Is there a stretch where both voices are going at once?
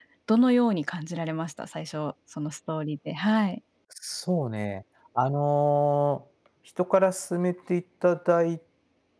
No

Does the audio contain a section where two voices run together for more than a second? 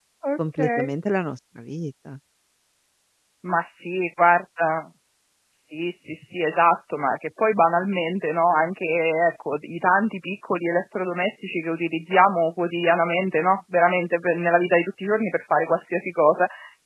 No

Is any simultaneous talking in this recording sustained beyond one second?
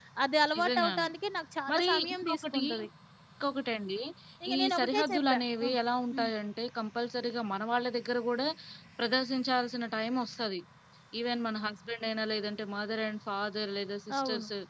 Yes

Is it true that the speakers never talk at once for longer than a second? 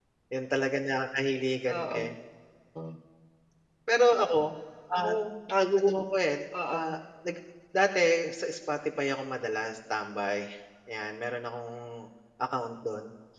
Yes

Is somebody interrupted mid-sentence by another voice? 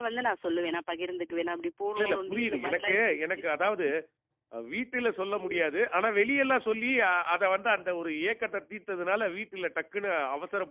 Yes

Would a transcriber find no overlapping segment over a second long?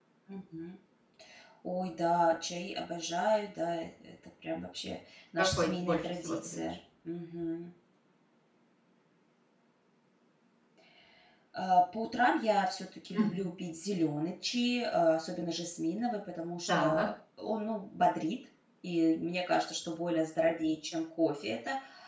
No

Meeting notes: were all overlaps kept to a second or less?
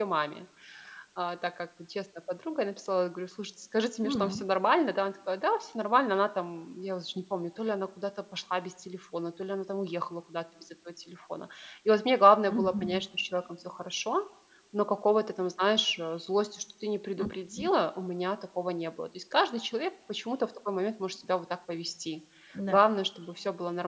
Yes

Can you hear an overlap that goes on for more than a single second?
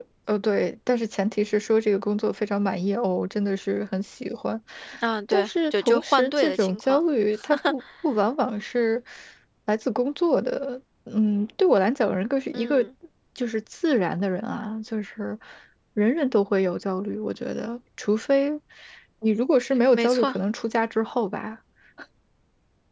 Yes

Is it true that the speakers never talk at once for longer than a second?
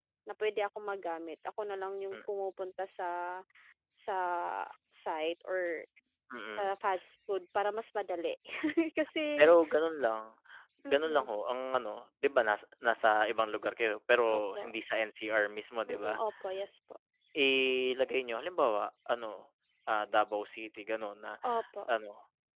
Yes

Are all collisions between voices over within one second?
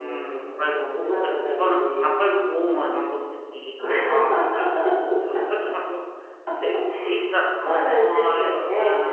No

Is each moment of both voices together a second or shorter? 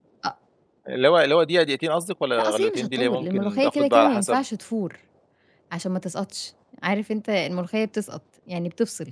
No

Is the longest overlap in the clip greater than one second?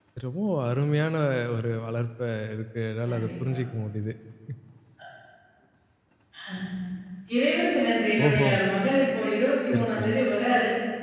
No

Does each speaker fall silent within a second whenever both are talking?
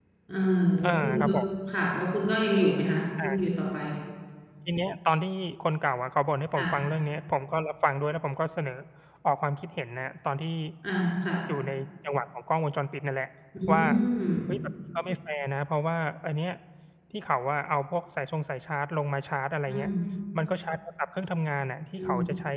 Yes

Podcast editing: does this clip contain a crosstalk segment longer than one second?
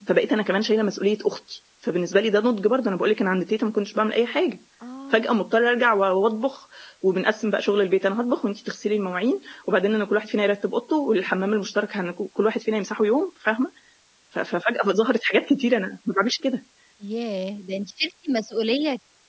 No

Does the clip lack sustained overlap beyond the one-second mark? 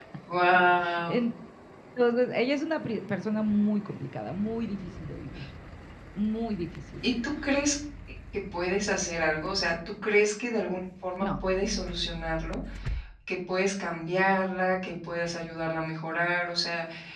Yes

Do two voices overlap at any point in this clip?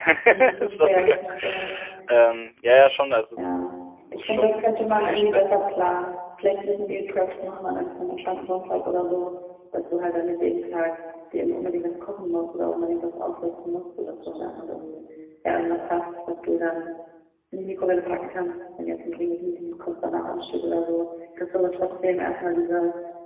Yes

